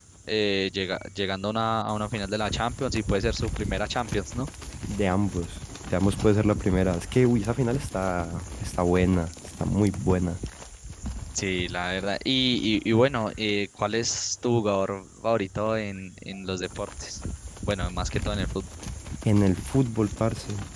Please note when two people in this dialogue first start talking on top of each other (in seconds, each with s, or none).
none